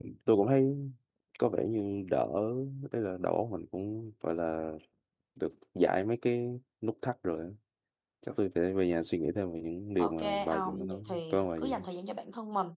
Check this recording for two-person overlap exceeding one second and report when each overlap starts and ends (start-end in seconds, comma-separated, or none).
10.0-11.8